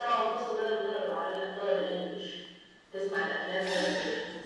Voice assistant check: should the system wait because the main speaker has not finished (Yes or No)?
Yes